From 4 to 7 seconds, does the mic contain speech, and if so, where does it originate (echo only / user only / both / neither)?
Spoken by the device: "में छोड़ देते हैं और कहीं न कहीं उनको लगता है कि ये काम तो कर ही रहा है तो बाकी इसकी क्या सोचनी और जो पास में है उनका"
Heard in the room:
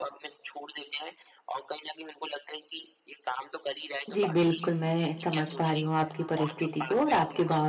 both